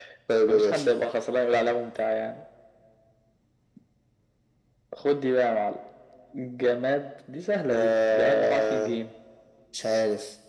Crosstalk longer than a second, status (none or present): present